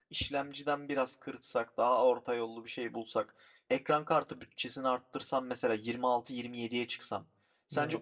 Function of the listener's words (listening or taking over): listening